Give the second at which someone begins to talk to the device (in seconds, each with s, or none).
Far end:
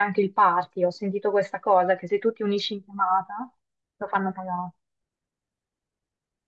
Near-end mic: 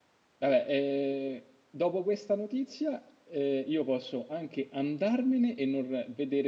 0.4 s